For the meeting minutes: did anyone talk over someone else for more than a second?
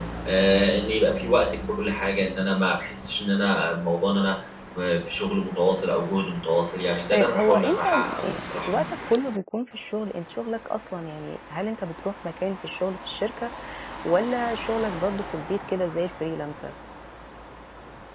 Yes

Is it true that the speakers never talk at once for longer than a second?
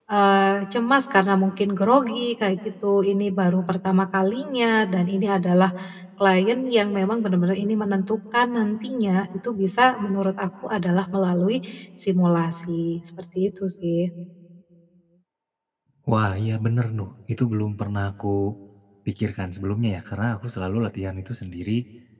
Yes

